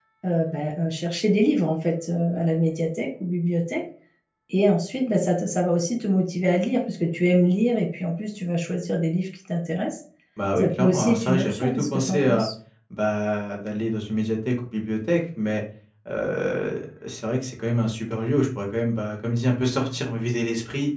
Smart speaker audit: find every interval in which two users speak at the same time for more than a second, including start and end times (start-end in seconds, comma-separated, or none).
10.6-12.5